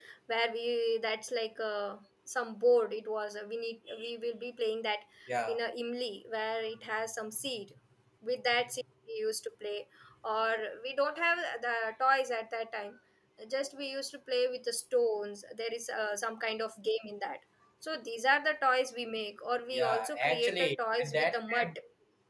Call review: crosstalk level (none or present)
present